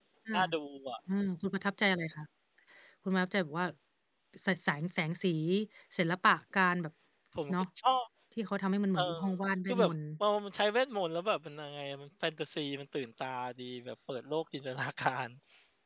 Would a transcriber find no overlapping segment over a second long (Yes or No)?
Yes